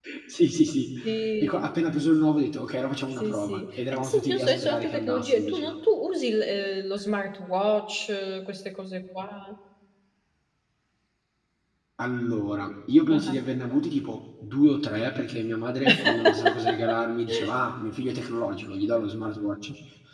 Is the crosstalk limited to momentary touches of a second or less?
No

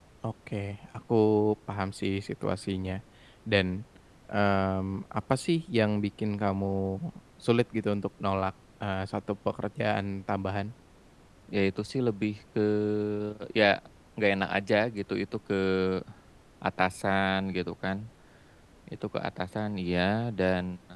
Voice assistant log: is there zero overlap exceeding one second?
Yes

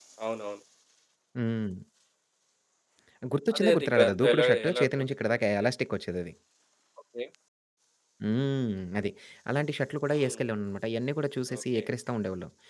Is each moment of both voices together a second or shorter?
No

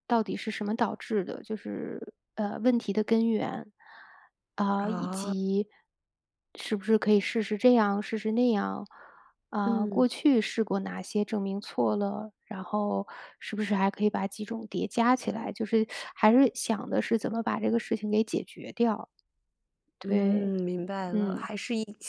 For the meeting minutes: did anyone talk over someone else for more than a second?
No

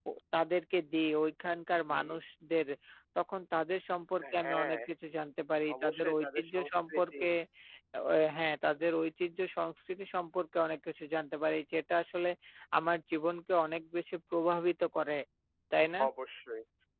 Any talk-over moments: Yes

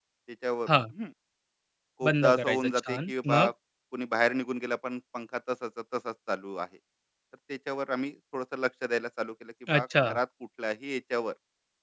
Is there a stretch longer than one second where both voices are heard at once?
Yes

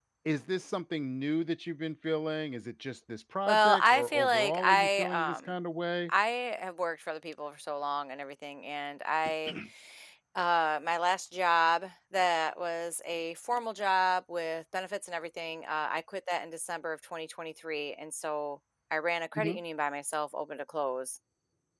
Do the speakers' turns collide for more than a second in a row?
Yes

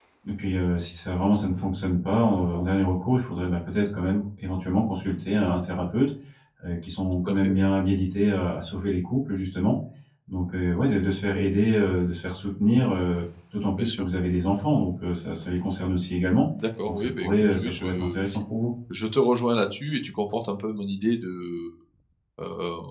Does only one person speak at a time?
No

